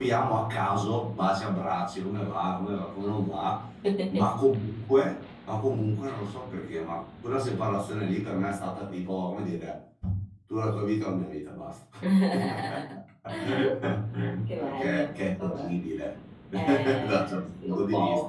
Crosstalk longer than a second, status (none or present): present